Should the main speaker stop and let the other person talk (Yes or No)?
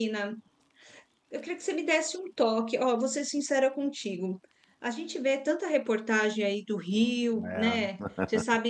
No